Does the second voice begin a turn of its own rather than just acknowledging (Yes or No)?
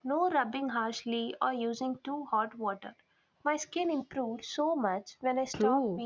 Yes